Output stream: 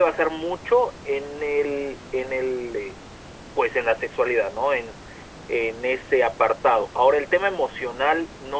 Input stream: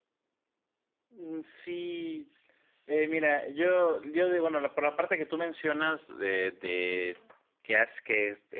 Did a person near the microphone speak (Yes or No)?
Yes